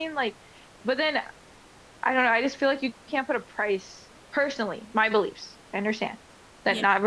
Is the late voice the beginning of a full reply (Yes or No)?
No